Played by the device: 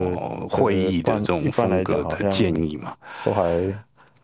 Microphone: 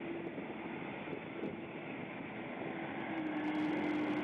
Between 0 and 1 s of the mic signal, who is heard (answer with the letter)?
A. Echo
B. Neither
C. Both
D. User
B